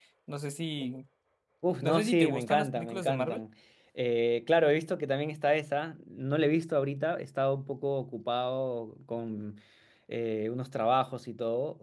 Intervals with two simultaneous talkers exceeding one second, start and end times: 1.8-3.4

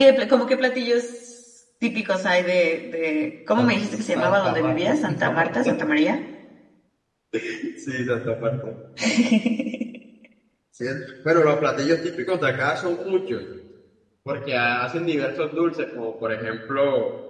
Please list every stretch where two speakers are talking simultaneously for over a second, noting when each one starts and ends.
3.6-5.7

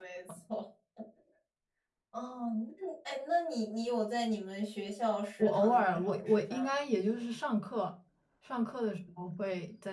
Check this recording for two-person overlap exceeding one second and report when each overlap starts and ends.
5.4-6.7

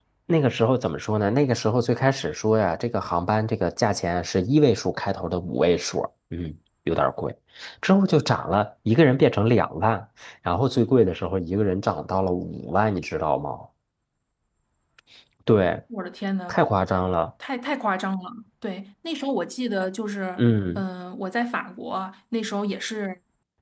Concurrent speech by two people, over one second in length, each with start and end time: none

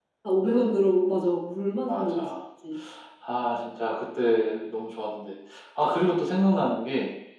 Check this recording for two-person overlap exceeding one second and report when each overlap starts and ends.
none

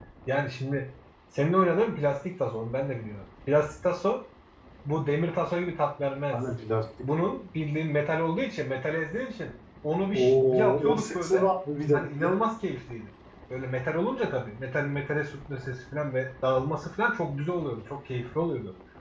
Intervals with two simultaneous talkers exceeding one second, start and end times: 10.1-11.5

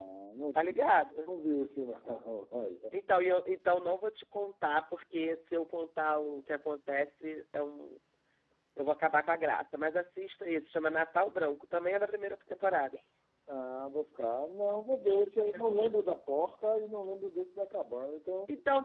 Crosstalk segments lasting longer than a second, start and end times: none

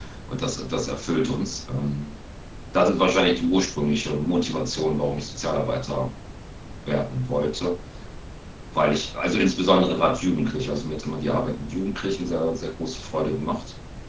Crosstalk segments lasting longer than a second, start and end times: none

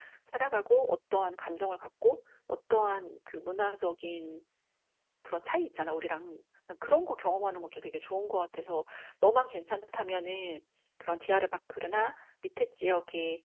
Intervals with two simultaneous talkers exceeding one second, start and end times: none

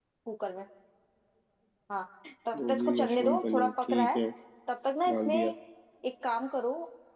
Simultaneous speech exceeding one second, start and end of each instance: 2.6-4.2

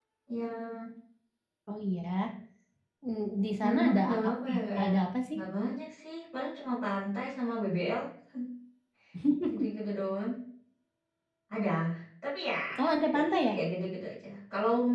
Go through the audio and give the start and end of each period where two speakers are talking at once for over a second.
3.6-4.9

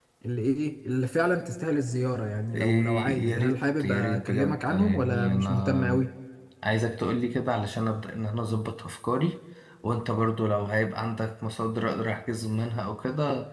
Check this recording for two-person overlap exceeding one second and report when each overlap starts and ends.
2.5-6.0

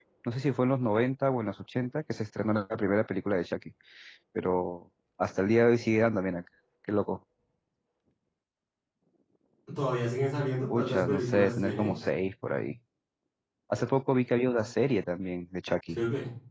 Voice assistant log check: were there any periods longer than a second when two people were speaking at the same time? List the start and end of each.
10.7-11.9

